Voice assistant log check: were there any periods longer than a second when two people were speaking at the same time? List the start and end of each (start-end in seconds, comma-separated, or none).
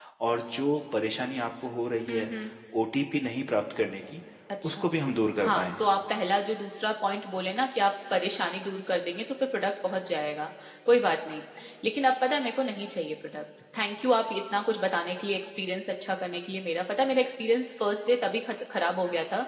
none